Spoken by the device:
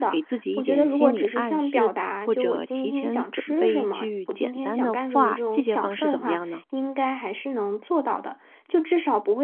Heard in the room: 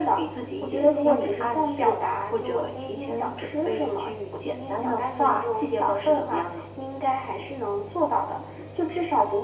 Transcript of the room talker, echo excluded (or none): none